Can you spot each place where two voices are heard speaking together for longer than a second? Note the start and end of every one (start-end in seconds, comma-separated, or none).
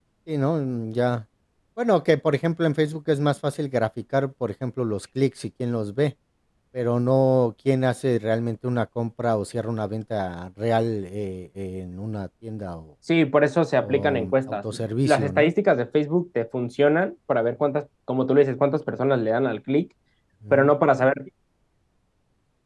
13.8-15.5